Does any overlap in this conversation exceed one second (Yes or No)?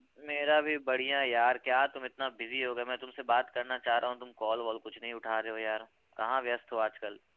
No